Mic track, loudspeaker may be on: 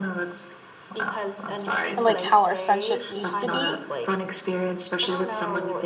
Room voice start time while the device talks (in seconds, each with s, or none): 2.0 s